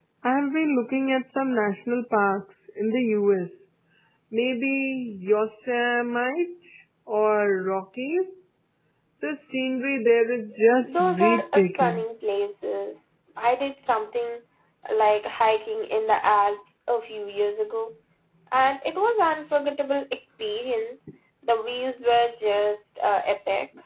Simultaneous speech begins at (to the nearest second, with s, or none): 11 s